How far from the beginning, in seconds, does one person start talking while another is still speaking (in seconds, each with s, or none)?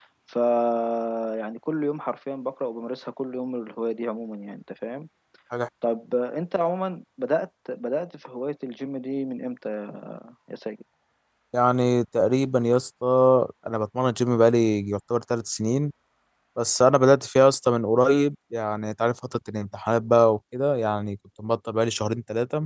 none